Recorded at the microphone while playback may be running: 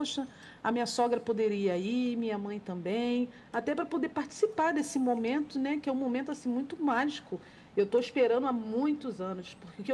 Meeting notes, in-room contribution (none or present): none